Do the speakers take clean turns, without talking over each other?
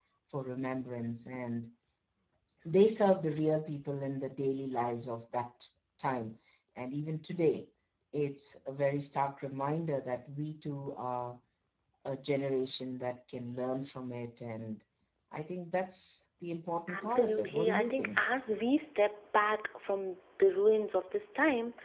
No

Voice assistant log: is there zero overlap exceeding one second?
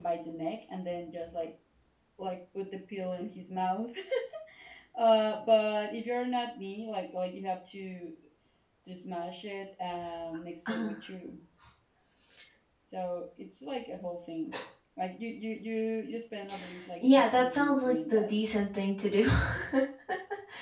No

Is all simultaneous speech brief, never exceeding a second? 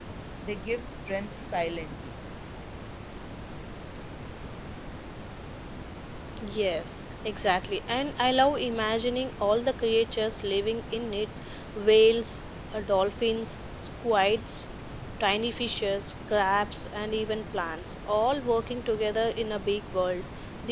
Yes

